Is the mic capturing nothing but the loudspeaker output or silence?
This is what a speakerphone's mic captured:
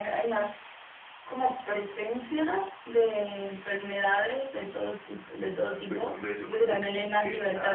No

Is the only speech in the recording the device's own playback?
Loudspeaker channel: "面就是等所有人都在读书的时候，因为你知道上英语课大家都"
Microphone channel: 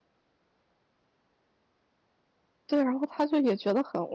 No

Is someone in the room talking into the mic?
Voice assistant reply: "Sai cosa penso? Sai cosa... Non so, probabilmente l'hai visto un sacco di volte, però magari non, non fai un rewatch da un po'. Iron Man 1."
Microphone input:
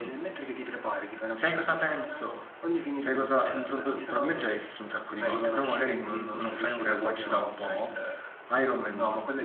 Yes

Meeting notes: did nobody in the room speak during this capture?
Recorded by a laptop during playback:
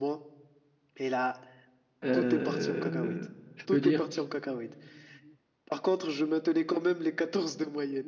No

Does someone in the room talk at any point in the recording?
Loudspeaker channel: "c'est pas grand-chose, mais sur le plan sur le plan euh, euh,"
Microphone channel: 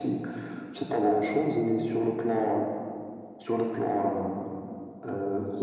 No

